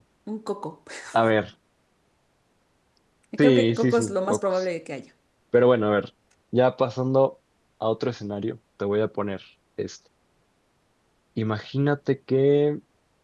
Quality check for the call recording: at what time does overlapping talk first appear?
3.4 s

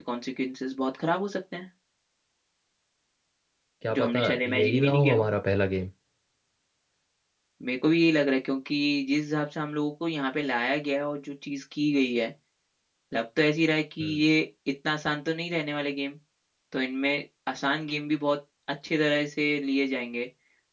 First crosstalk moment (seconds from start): 3.9 s

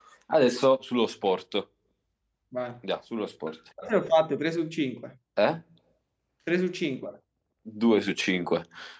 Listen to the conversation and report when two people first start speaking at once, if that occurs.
none

